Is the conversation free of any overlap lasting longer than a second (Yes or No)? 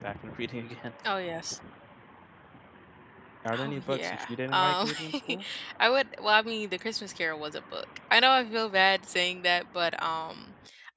No